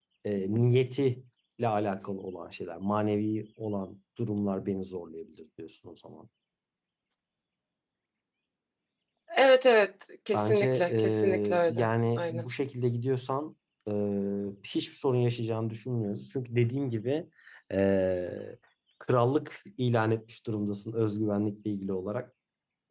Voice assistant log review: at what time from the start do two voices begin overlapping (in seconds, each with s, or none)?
10.3 s